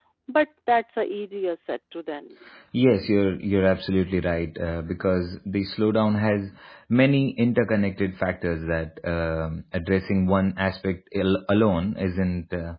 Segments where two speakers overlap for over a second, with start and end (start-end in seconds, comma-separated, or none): none